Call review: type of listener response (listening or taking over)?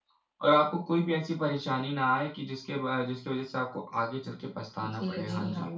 taking over